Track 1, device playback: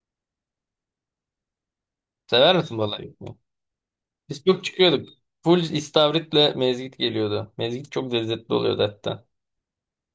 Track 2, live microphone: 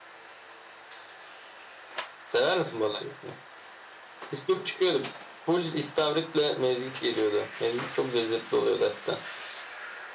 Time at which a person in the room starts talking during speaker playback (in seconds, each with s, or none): none